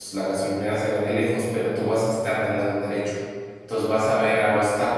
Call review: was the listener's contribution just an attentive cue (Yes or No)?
Yes